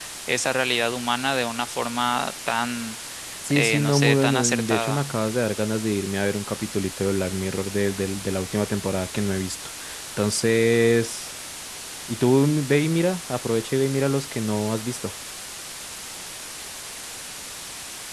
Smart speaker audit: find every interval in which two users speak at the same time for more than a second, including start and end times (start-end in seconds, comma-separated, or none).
3.5-5.0